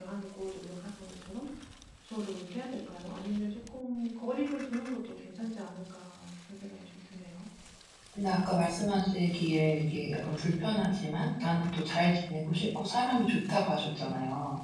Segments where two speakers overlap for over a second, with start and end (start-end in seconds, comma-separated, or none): none